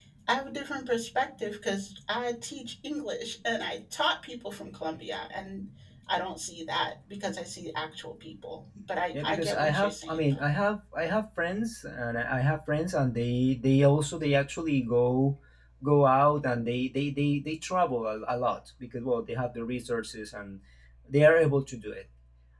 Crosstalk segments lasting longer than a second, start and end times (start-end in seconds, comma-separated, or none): 9.1-10.5